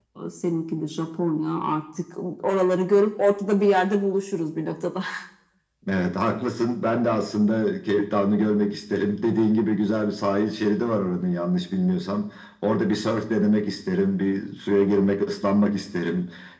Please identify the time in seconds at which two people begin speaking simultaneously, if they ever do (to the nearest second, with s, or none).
none